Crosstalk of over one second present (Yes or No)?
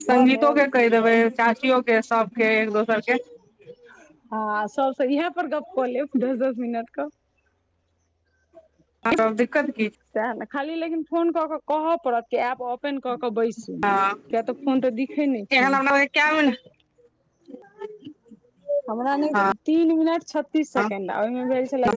No